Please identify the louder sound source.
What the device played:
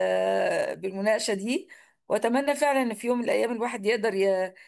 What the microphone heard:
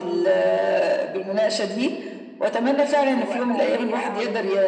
echo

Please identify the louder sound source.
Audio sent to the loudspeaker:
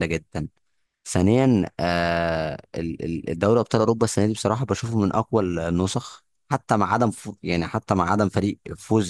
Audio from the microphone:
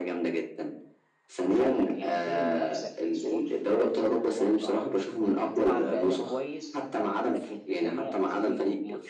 echo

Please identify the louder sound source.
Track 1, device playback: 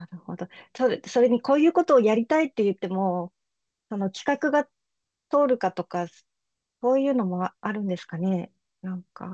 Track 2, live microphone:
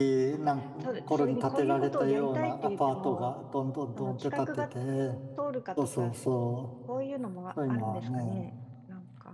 user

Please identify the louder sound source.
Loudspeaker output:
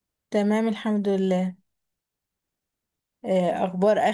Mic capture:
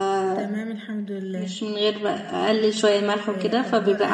user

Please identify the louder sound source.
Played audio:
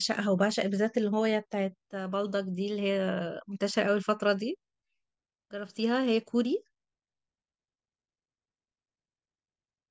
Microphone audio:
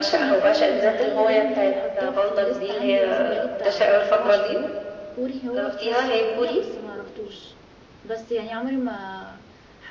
echo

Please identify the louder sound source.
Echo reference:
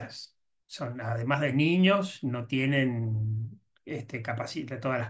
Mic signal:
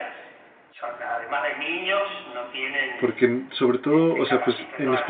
user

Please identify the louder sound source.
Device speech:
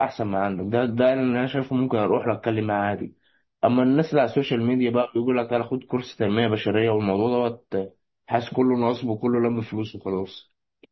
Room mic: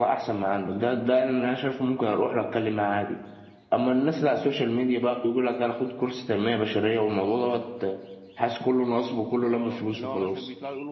echo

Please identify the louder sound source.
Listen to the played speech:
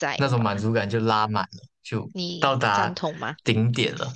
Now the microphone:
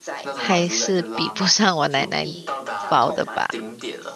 user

